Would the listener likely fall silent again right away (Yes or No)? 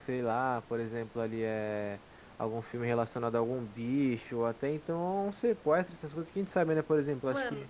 Yes